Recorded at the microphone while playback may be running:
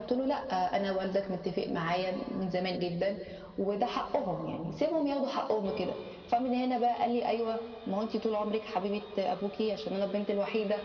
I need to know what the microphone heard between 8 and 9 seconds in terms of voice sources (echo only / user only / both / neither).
echo only